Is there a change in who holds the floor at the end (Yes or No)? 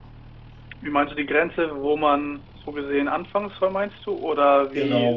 Yes